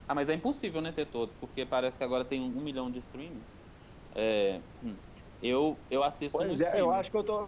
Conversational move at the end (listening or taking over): taking over